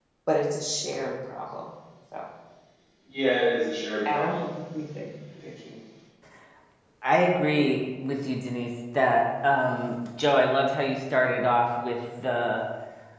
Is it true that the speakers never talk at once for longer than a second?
Yes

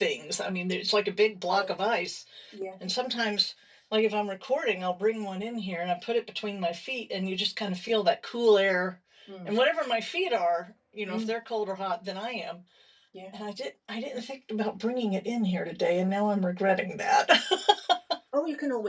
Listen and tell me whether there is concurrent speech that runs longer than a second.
No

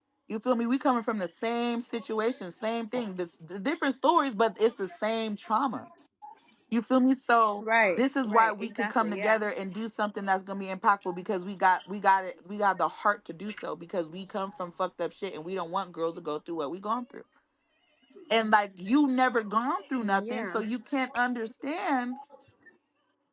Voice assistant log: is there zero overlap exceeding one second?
No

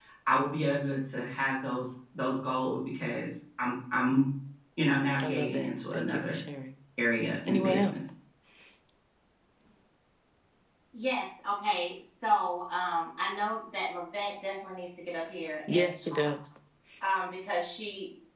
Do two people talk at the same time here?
Yes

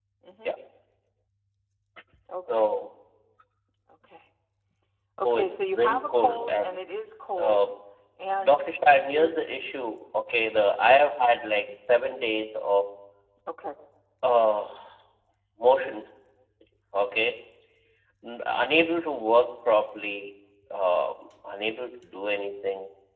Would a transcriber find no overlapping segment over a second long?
No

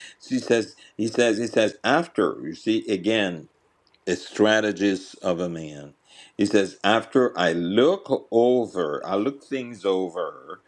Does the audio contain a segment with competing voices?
No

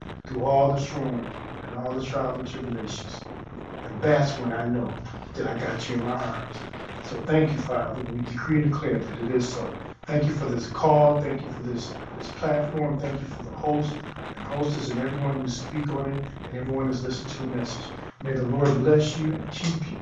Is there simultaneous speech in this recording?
No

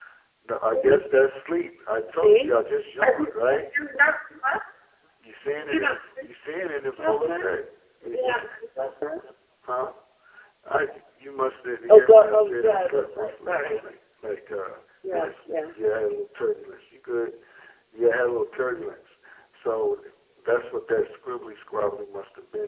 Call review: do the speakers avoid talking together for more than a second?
No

